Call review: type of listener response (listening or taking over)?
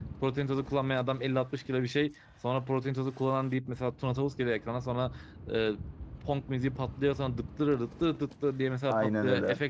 listening